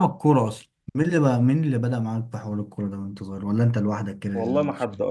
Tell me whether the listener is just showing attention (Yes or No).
No